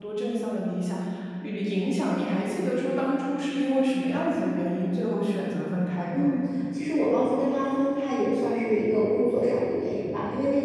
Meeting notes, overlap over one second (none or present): none